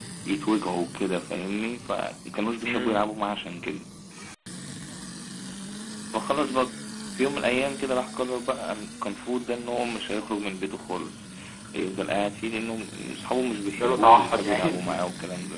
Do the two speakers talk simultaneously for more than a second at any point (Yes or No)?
Yes